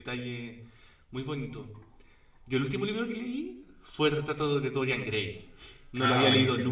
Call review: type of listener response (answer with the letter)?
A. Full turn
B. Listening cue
B